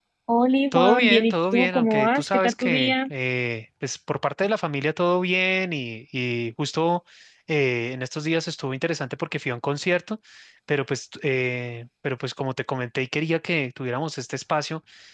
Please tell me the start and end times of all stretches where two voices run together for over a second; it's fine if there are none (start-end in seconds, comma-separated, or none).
0.7-3.0